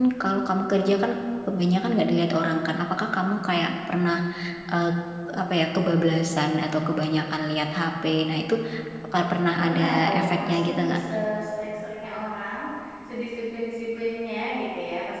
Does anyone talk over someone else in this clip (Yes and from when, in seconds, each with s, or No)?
Yes, from 9.6 s